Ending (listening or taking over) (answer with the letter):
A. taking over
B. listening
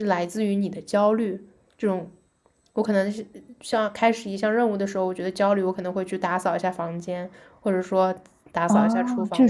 A